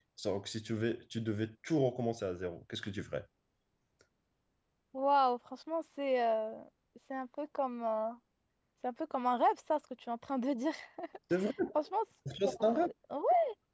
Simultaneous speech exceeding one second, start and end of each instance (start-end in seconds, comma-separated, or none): none